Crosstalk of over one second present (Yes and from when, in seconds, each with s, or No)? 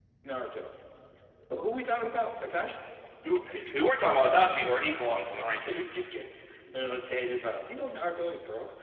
No